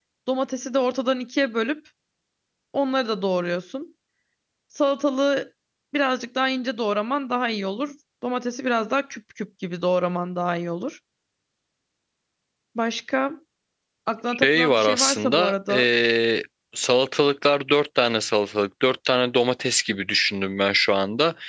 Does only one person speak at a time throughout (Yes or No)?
No